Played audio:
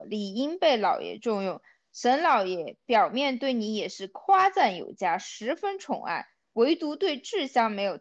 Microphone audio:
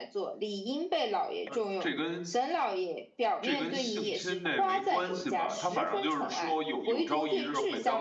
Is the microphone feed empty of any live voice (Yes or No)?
No